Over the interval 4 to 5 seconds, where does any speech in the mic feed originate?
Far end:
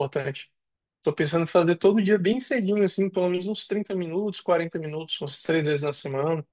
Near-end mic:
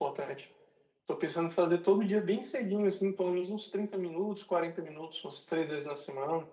echo only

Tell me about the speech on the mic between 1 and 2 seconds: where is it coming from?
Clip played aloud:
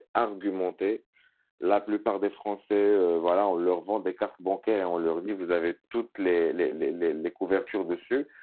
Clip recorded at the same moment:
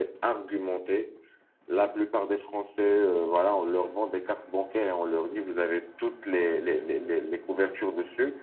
echo only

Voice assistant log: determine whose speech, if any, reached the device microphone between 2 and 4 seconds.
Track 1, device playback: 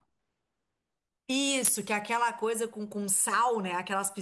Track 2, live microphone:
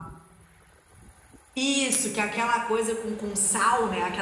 echo only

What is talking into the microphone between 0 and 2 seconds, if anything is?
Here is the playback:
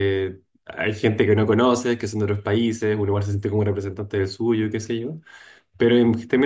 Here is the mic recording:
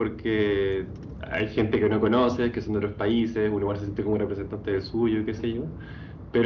echo only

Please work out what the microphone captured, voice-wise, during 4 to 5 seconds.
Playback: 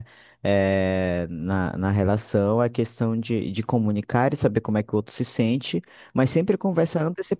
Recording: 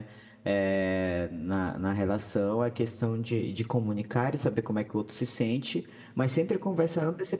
echo only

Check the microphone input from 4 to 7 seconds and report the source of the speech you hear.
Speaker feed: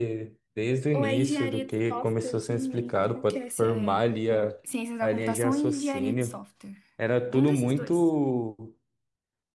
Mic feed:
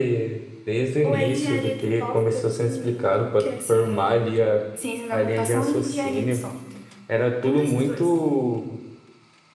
echo only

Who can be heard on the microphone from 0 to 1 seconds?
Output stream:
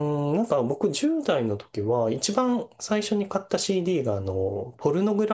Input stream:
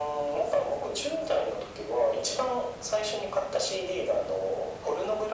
echo only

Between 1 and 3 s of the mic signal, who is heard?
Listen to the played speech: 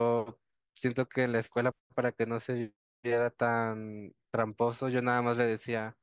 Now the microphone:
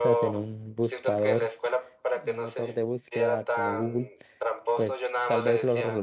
both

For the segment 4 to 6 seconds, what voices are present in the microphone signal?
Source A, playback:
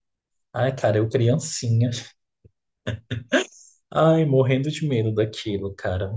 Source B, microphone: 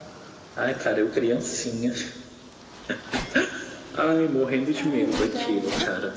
both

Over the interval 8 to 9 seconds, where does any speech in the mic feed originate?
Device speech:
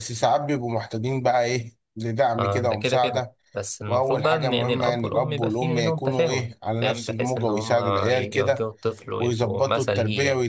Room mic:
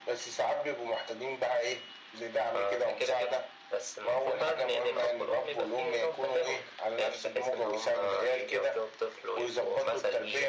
echo only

